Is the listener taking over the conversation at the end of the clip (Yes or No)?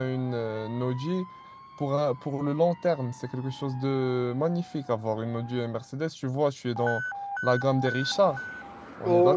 Yes